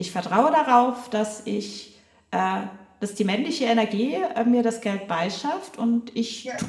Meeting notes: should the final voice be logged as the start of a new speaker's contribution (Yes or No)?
No